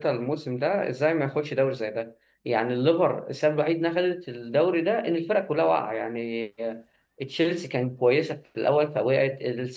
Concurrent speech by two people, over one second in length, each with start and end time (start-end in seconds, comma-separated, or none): none